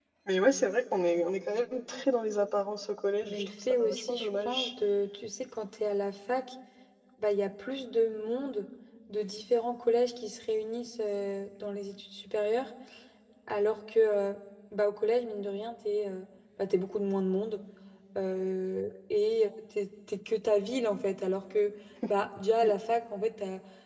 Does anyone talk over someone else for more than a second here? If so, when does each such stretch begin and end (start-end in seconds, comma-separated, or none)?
3.2-4.7